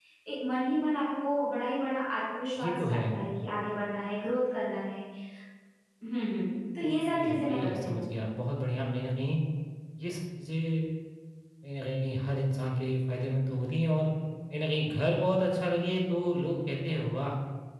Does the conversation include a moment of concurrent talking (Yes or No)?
Yes